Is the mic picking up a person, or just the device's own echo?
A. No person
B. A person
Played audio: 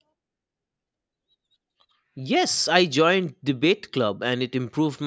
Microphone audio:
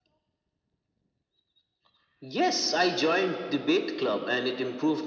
A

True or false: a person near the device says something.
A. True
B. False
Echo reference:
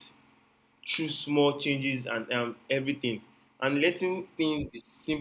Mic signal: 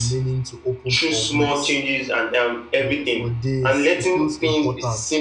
A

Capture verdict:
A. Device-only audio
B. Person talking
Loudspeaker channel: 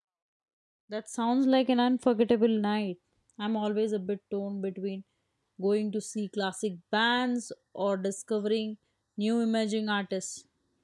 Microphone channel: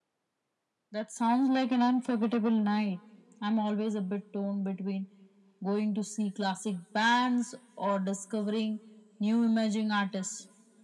A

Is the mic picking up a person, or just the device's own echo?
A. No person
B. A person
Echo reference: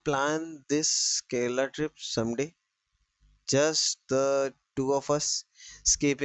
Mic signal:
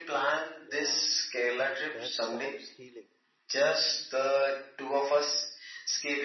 B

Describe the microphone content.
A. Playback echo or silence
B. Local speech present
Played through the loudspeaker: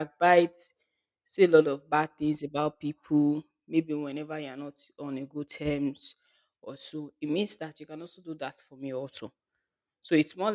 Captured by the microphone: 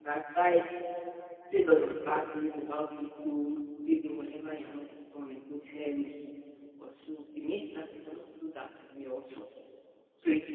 A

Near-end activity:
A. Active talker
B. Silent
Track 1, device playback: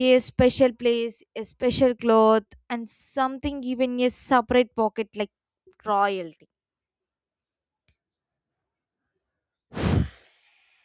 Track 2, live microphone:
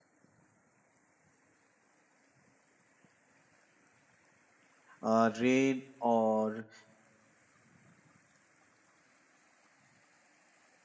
A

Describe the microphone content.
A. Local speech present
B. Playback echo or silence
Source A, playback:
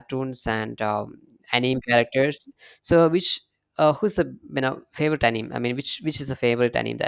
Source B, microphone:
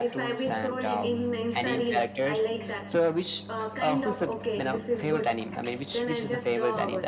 A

